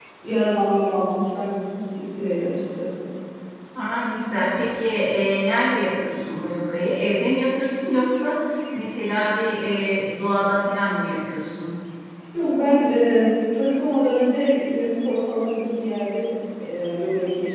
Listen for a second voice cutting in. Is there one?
No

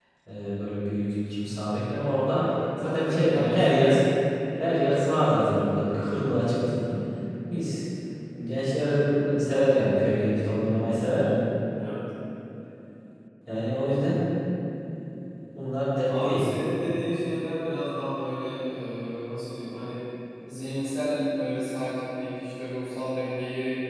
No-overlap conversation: No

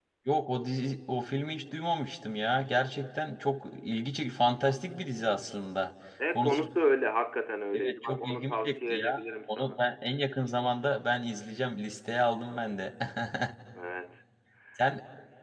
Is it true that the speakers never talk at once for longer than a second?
No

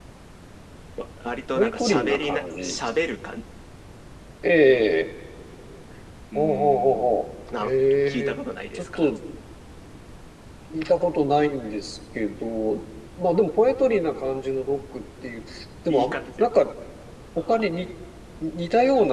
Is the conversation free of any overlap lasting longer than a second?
No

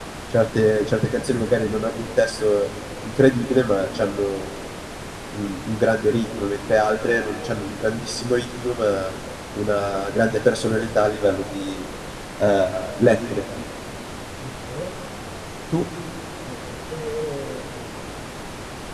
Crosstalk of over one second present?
No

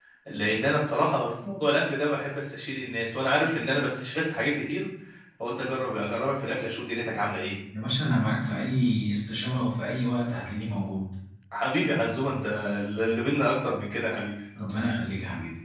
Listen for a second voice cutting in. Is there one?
No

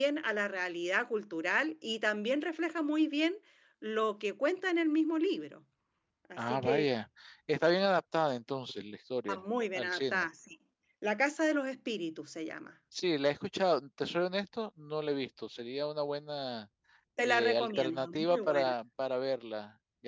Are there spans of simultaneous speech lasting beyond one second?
Yes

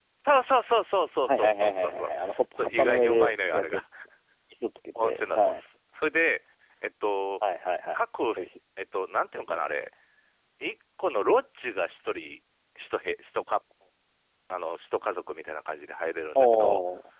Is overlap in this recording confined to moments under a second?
No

